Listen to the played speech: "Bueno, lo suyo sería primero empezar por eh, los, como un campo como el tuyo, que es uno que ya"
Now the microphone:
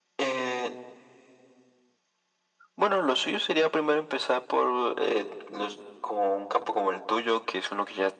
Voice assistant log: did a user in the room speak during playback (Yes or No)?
No